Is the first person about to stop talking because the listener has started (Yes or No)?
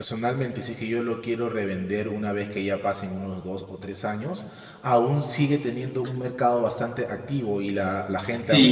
Yes